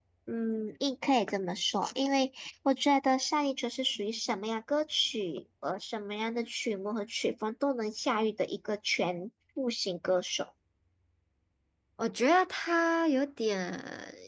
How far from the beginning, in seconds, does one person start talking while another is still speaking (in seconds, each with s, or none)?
none